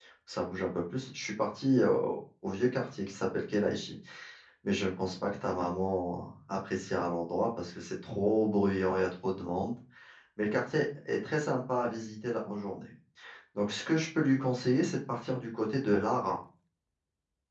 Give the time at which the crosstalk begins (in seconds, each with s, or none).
none